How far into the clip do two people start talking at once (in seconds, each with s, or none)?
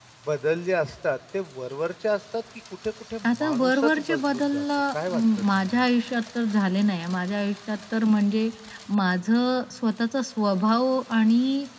3.2 s